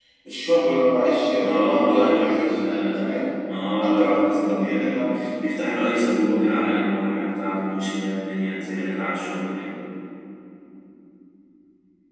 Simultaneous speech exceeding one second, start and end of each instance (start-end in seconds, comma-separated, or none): 1.4-3.2, 3.8-5.3